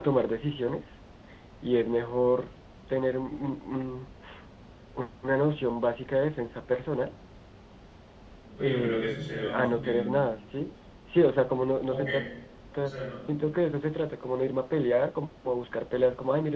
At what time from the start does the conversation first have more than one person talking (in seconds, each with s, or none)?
8.6 s